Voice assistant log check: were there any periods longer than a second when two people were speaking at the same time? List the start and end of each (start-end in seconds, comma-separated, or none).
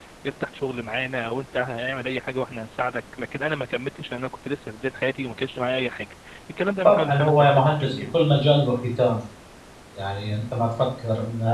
6.8-8.2